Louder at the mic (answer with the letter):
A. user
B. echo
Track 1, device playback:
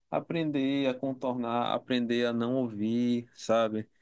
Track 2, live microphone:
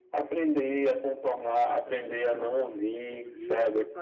B